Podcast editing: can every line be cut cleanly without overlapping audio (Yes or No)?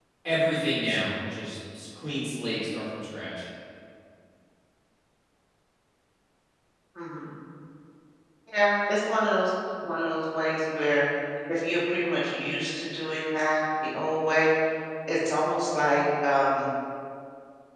Yes